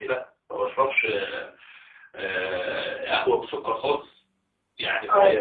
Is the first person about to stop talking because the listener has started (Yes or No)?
No